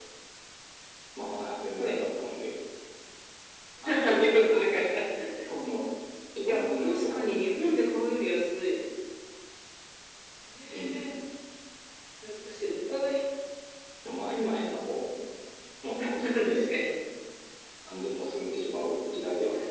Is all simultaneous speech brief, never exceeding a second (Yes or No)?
No